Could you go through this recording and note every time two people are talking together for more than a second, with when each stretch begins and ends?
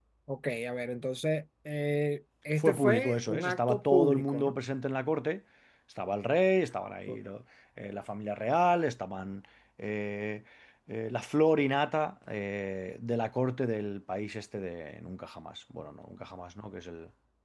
2.6-4.5

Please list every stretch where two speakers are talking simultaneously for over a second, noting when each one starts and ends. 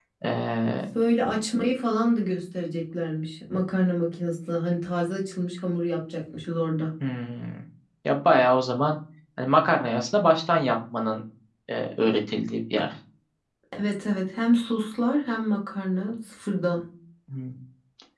none

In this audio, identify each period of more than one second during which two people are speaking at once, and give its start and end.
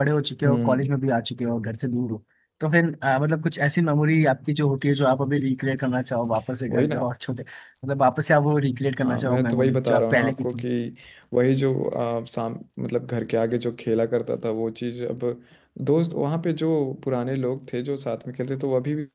9.0-10.6

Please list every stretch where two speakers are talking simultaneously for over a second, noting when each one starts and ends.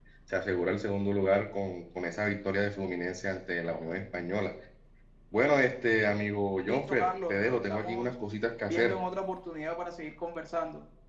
6.6-8.1

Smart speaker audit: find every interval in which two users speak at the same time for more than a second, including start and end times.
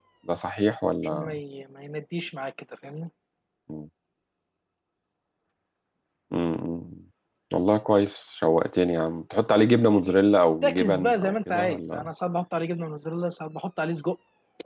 10.6-12.1

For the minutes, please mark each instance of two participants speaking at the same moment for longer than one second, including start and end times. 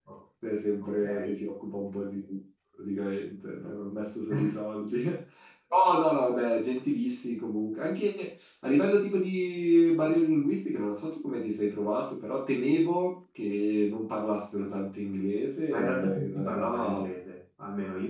15.7-17.0

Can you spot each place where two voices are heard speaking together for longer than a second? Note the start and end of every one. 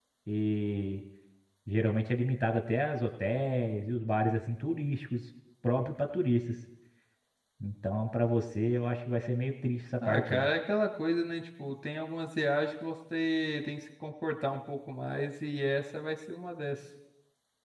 none

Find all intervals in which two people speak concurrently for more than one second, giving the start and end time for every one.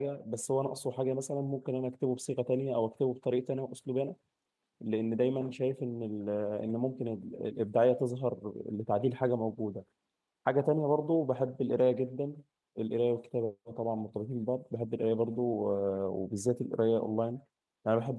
none

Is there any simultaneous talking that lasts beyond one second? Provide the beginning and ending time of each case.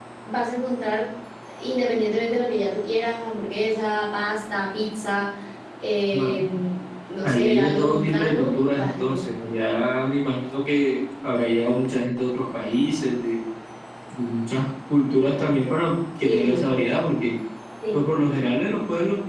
7.2-9.2

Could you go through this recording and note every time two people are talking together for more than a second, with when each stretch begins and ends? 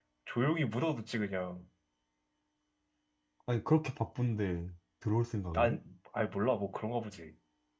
none

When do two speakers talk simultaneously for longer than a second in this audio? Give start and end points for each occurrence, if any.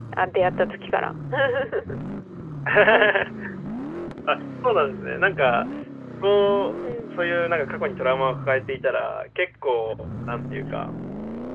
none

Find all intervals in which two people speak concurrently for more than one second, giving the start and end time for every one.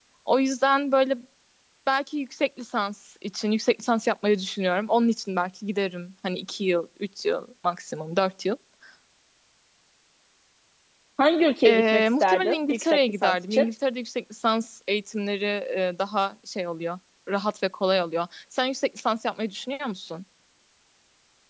11.7-13.7

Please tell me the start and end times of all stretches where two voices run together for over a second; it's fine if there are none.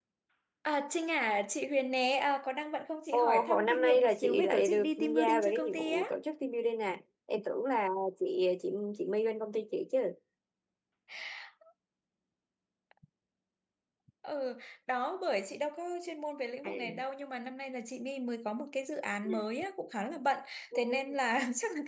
3.1-6.1

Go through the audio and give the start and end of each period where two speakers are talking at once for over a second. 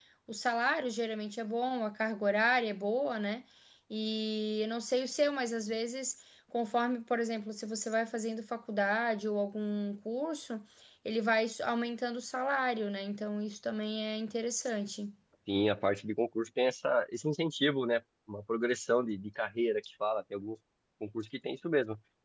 none

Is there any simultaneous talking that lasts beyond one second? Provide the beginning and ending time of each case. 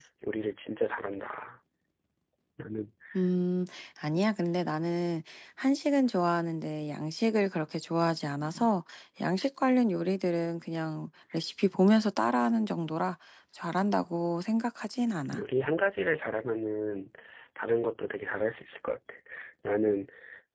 none

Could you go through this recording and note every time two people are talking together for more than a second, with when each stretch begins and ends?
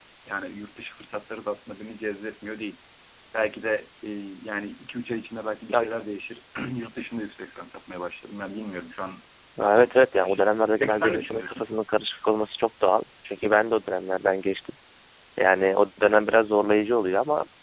9.6-11.7

